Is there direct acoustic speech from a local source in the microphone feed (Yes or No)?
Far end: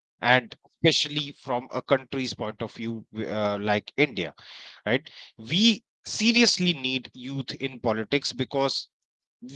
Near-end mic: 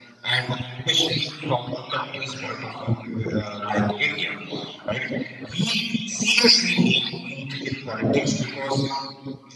No